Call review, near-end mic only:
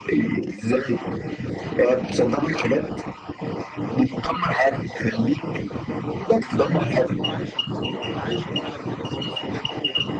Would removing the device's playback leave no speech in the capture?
No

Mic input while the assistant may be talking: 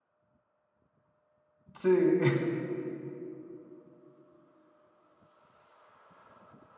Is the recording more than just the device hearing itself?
Yes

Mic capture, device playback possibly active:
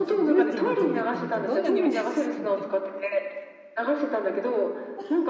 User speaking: Yes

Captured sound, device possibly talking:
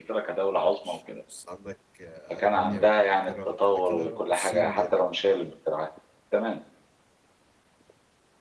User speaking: Yes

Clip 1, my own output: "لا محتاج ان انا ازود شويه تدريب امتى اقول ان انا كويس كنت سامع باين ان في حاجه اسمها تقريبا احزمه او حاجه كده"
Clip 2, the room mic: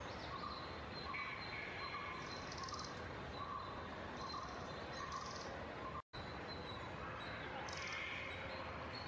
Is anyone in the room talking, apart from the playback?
No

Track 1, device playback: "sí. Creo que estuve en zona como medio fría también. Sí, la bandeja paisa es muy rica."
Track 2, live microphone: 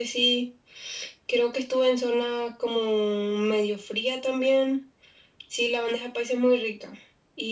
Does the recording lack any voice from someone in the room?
Yes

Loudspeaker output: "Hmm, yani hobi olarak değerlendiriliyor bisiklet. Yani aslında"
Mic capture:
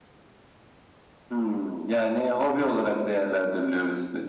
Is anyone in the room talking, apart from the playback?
No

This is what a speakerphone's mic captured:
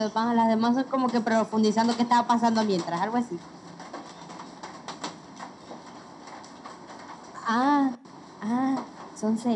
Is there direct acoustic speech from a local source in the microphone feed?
No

